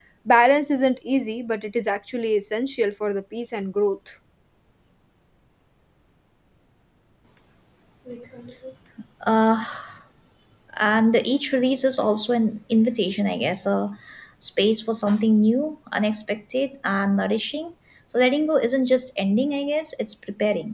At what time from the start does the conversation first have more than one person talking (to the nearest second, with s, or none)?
none